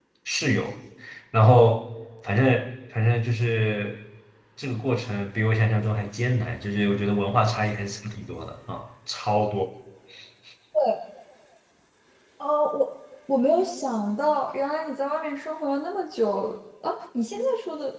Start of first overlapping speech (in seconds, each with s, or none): none